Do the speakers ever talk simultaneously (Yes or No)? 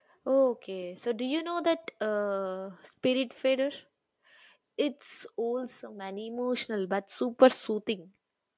No